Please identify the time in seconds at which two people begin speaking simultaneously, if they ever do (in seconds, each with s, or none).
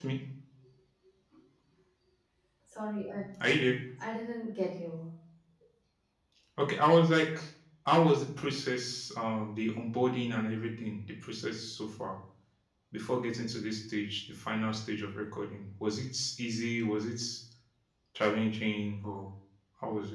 none